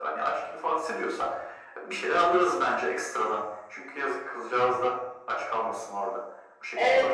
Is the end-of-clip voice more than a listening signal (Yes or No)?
Yes